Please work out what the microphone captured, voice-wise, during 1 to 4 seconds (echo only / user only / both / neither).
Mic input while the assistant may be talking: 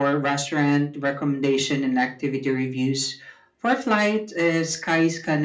echo only